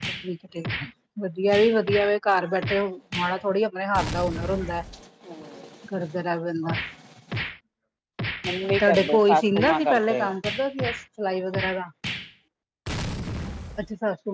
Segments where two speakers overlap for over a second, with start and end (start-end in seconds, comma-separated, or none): 8.8-10.3